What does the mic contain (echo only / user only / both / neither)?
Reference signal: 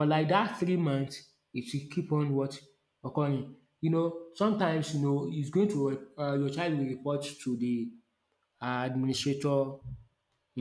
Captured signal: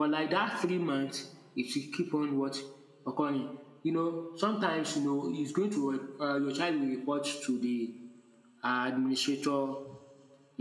echo only